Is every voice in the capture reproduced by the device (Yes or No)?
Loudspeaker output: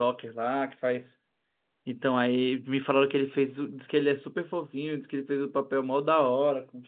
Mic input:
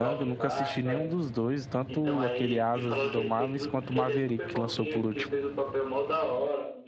No